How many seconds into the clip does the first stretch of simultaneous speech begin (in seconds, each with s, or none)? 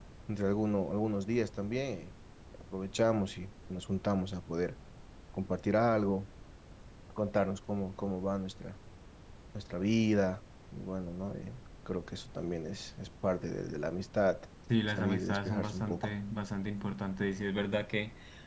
14.9 s